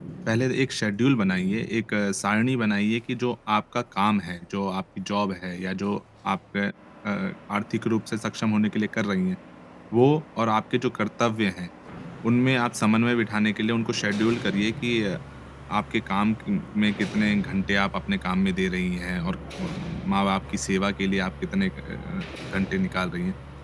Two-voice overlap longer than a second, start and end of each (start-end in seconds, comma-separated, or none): none